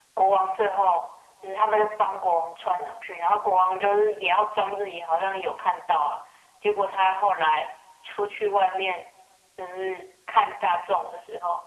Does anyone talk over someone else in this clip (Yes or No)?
No